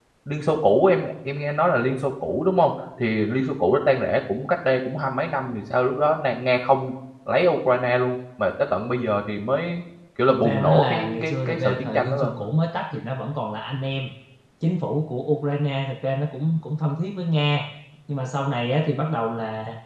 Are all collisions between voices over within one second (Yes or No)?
No